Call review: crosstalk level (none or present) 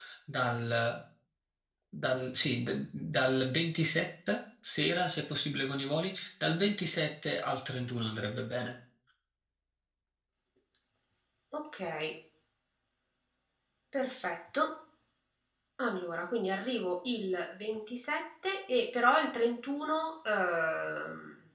none